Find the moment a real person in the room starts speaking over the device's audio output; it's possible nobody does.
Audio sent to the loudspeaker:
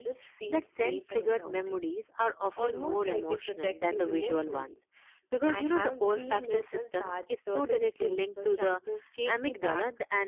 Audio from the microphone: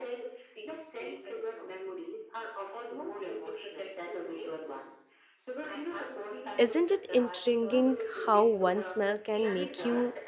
6.6 s

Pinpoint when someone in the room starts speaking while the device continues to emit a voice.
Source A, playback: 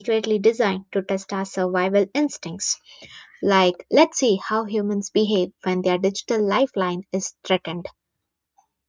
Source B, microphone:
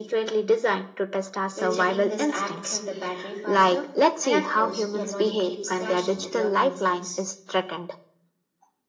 1.5 s

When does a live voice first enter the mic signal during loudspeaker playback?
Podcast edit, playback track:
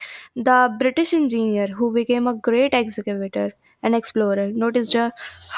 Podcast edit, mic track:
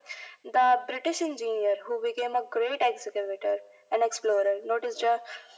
none

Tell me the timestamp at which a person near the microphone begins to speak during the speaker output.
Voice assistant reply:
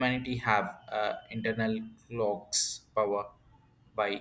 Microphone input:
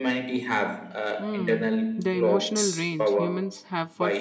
1.2 s

